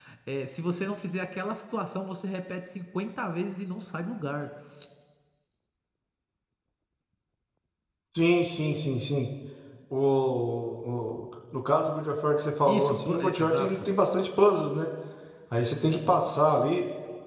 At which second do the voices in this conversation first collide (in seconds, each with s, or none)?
12.7 s